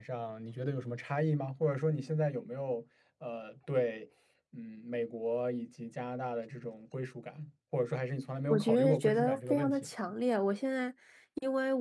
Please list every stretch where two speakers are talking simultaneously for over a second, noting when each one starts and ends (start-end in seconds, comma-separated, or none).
8.5-9.9